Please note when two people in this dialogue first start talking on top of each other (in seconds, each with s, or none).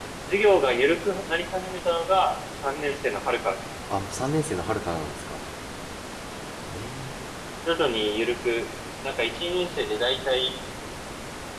none